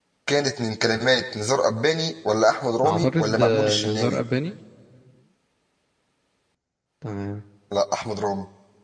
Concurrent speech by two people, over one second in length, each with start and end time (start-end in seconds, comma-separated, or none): 2.9-4.2